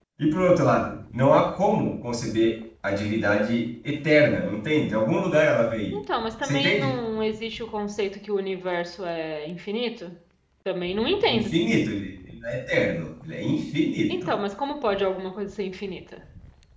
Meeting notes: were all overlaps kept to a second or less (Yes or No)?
Yes